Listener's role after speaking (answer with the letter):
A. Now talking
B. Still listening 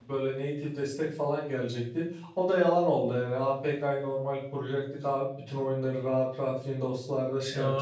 A